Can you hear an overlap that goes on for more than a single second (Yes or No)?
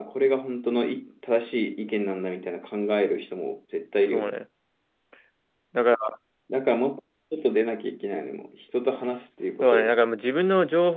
No